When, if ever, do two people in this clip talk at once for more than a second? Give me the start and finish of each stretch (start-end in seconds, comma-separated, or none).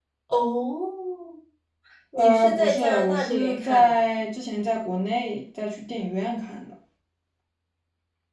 2.2-4.0